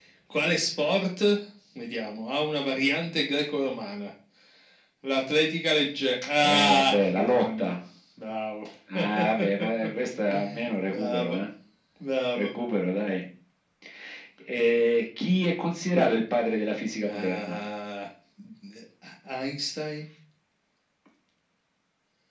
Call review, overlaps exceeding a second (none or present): present